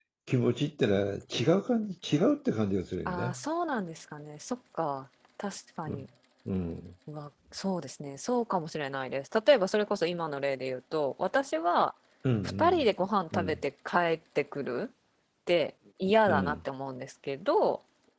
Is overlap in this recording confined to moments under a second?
Yes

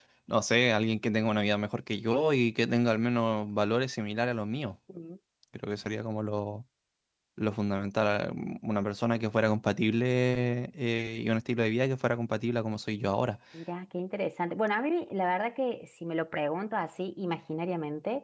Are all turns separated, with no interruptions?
Yes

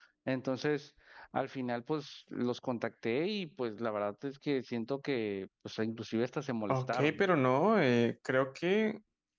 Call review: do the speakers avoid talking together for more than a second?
Yes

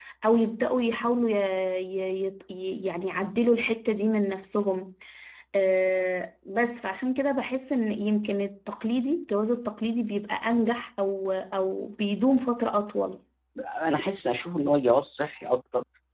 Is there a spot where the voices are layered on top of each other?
No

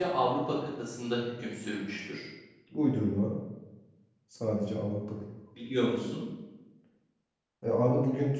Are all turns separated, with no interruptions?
Yes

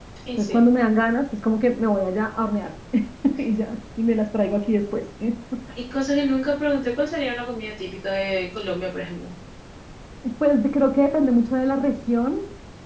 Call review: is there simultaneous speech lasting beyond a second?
No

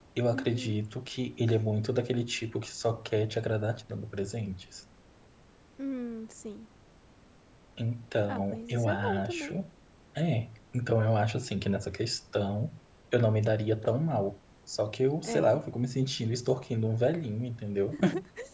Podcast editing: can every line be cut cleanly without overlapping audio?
No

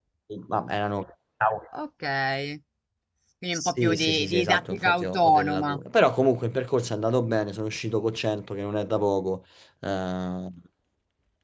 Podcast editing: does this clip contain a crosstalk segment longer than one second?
Yes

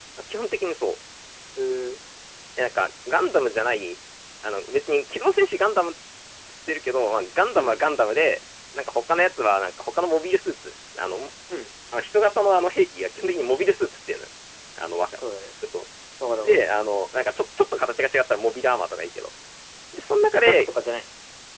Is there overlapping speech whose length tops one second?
No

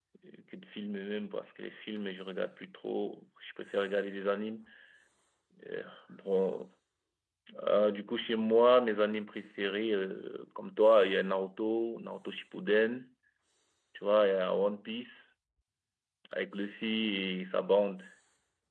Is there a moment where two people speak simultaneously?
No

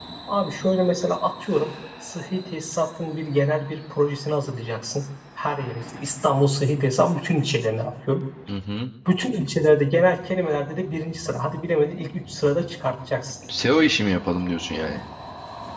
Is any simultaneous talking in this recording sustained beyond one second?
No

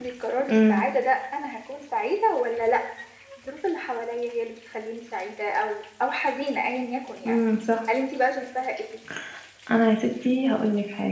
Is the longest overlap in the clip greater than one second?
No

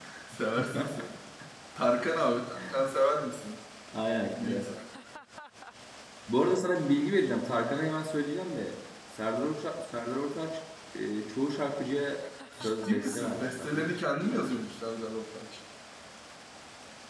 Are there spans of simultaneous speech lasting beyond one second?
Yes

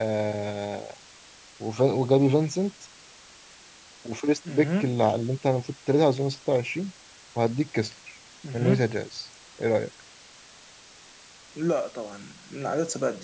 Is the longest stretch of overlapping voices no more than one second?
Yes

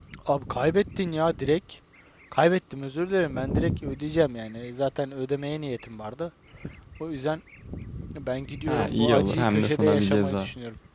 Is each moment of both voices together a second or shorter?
No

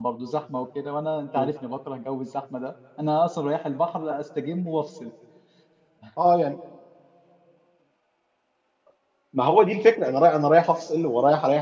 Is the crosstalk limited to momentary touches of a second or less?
Yes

